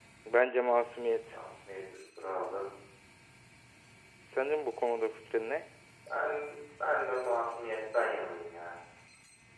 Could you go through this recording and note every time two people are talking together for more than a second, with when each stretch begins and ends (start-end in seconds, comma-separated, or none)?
none